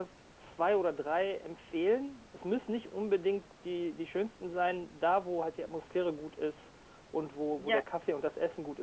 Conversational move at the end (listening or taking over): listening